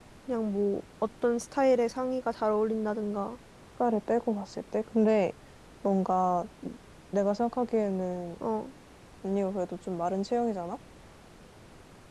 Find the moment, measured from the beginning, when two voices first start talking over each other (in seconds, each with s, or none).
none